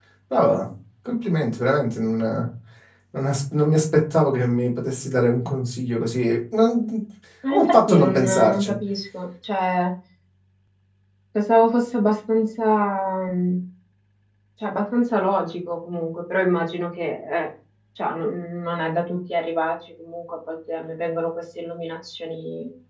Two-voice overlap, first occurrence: 7.5 s

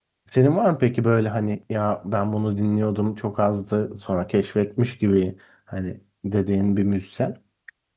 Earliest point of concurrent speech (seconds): none

